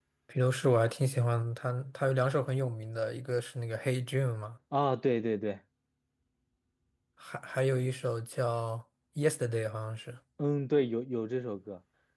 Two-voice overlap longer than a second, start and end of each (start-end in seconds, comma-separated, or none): none